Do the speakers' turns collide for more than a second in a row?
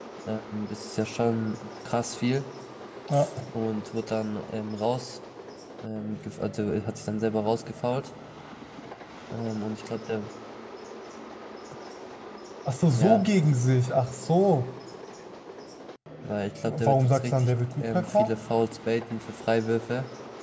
Yes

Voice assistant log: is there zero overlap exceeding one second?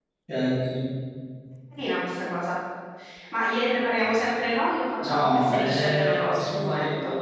No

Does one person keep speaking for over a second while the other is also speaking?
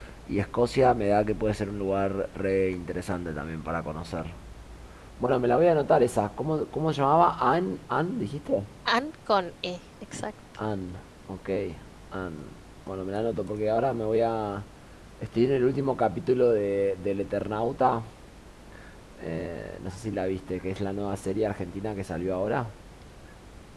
No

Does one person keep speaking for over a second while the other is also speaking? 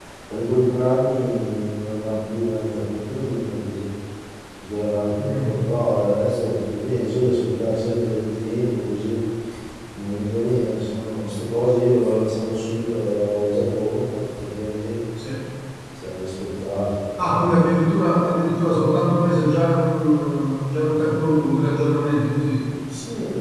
No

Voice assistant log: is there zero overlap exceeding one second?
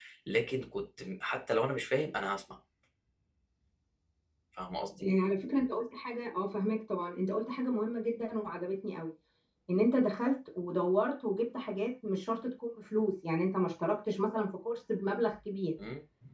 Yes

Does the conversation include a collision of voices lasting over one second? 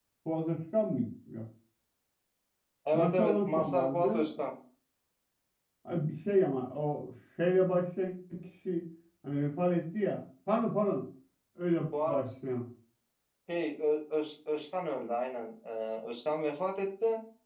Yes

